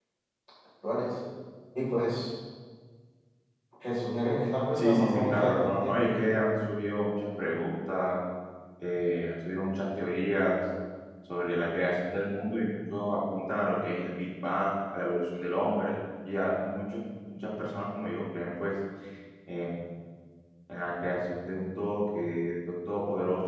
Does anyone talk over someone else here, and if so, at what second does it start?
4.7 s

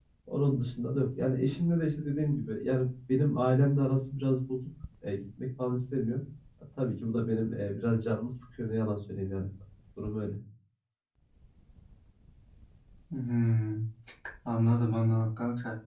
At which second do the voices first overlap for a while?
none

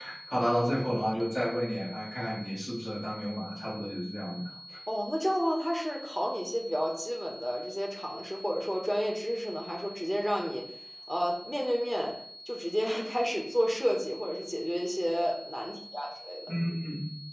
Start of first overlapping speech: none

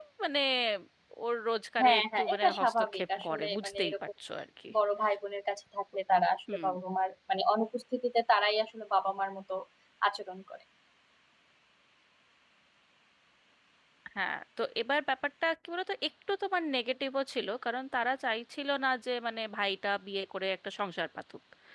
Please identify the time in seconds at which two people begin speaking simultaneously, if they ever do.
1.8 s

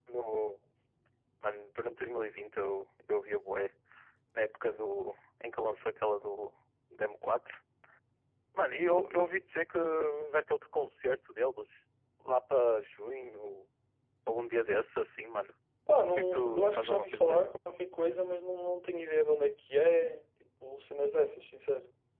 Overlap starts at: 16.1 s

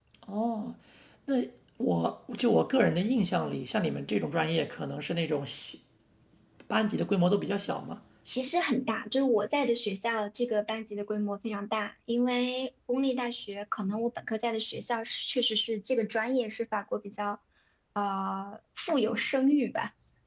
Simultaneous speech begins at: none

